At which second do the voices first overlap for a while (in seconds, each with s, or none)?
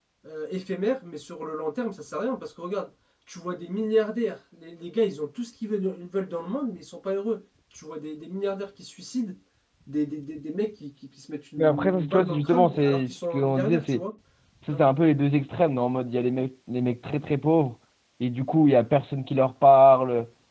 11.6 s